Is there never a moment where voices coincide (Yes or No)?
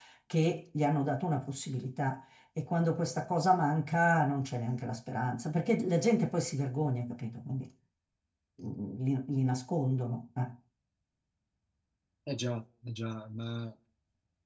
Yes